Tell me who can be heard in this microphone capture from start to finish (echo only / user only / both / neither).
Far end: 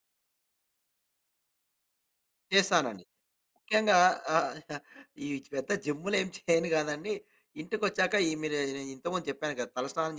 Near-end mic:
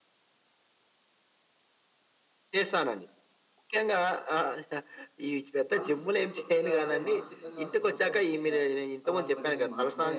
both